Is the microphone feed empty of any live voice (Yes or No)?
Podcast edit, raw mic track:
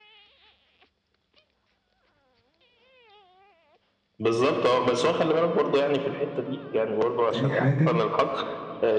No